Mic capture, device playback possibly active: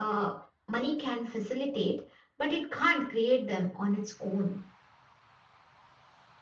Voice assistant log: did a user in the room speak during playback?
No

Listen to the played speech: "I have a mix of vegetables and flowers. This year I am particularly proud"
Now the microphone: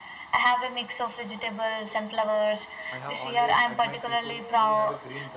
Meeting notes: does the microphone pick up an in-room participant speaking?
Yes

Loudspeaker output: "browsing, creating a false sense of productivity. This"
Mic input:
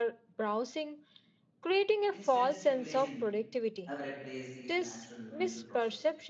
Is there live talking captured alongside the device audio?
Yes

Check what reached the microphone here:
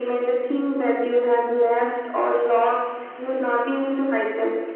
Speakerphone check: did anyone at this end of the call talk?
No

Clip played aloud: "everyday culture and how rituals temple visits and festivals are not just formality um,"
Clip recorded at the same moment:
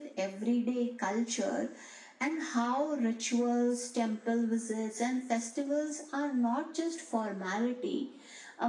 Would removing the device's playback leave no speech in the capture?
Yes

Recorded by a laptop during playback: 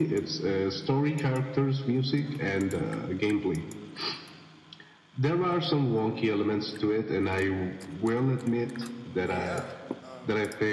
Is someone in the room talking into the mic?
Yes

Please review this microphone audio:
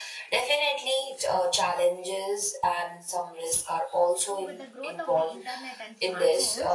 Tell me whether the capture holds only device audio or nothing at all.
No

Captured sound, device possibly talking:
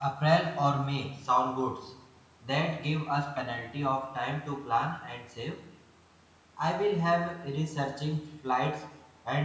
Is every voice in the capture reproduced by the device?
No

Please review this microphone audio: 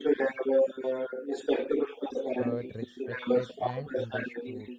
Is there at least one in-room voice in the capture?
Yes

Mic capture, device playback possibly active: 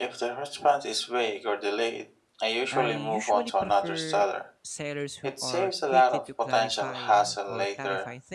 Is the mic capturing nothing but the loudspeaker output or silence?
No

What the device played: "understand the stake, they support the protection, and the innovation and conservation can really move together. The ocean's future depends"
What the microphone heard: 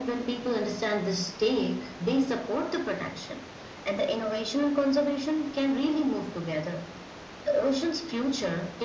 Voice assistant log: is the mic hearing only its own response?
Yes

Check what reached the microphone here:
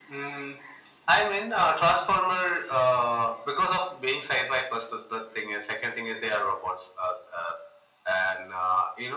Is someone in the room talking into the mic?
No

